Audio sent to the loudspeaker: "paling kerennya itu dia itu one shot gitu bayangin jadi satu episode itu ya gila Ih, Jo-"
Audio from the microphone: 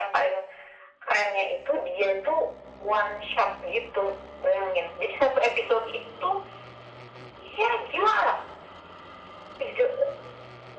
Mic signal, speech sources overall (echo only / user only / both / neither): echo only